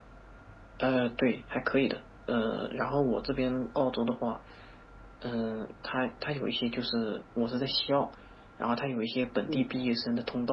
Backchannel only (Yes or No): Yes